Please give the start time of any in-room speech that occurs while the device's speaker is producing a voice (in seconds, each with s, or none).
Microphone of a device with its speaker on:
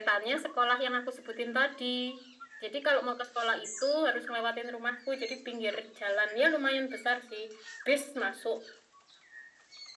none